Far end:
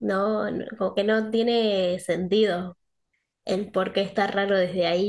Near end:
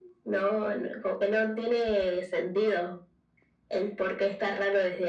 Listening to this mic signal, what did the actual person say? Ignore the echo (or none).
none